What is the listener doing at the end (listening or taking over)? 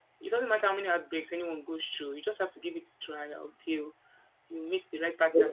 taking over